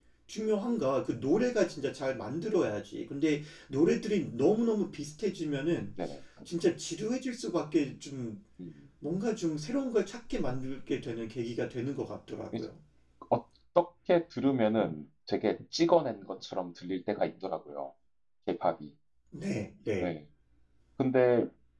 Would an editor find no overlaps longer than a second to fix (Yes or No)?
Yes